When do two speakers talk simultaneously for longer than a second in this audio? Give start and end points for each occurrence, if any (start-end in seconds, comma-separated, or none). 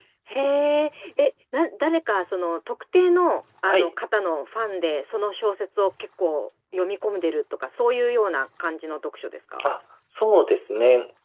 none